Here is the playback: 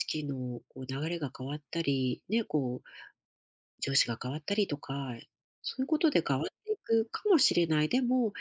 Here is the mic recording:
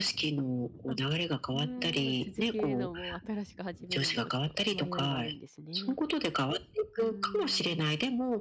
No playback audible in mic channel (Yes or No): No